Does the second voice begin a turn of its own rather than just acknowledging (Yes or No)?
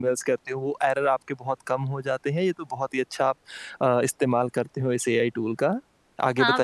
Yes